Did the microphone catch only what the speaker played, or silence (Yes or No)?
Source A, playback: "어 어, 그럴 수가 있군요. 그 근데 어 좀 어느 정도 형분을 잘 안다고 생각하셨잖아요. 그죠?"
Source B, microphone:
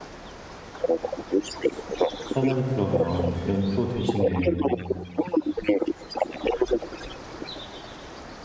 No